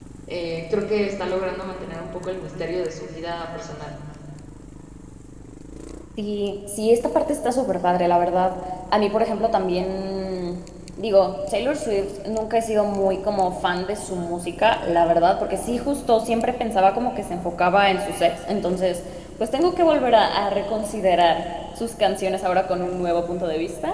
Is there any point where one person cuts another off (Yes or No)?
No